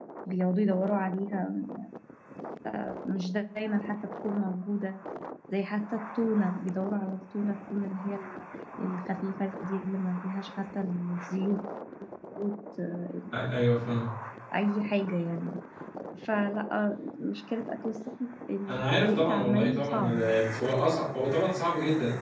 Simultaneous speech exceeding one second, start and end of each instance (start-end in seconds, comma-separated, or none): 19.0-20.3